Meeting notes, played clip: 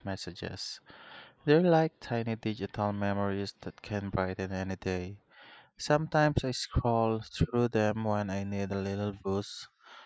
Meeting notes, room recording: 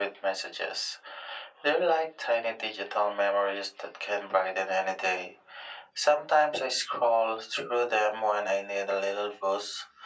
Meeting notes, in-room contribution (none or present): none